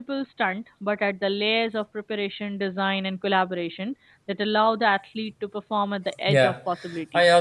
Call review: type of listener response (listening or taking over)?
taking over